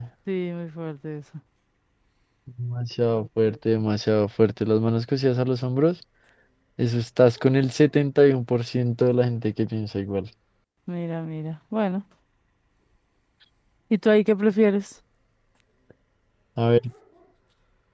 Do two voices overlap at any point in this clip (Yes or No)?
No